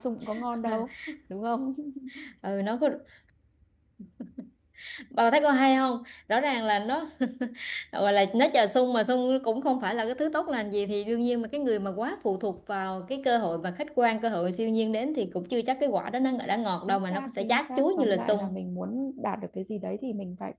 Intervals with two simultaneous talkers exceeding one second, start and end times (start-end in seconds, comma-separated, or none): 16.9-18.6